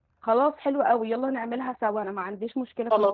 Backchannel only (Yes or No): No